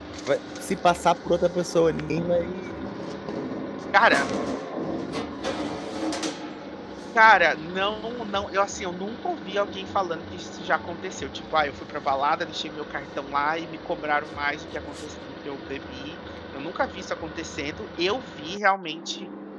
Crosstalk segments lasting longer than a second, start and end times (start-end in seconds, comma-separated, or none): none